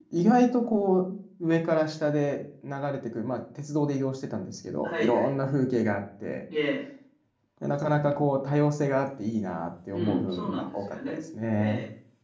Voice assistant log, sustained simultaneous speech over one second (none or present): present